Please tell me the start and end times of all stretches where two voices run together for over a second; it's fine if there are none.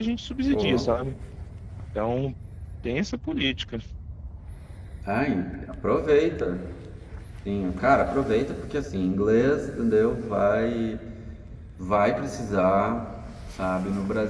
none

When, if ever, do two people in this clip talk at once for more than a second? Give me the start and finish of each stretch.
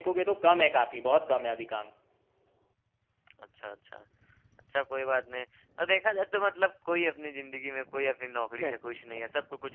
none

